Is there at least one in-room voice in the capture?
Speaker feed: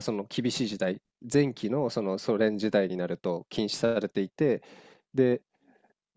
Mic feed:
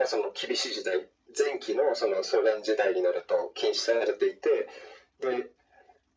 No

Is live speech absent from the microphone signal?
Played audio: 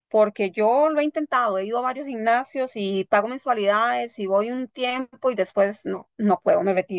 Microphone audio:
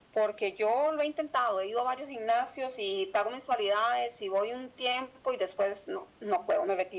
Yes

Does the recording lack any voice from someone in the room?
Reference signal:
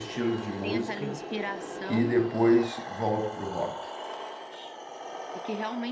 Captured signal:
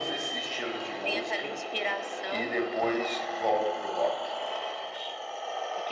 Yes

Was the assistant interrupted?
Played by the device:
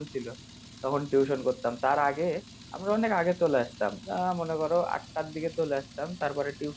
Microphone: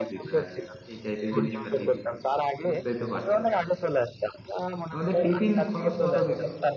Yes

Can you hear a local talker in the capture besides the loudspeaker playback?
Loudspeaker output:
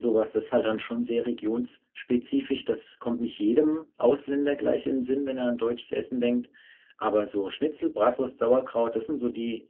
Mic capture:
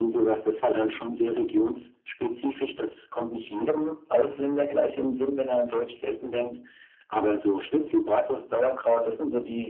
No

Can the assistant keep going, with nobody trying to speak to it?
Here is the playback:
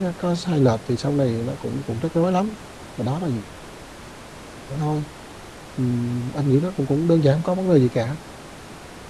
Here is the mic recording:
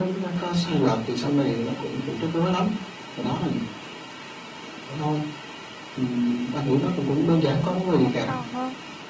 No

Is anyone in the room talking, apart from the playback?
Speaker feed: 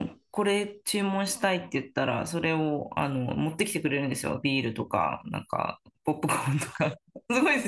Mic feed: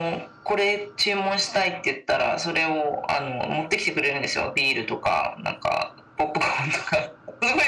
No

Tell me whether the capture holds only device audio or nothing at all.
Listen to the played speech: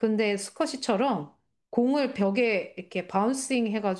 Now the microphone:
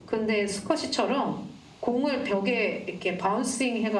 Yes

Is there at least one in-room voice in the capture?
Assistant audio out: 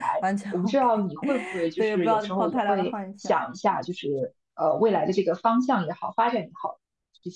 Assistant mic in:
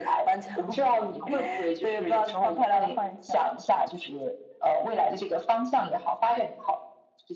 No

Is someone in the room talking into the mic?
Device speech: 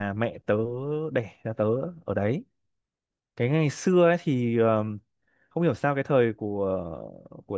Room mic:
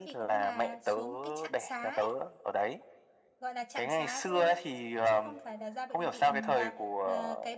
Yes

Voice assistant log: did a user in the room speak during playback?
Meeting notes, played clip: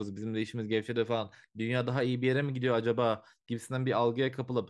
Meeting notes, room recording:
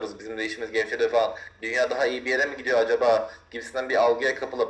No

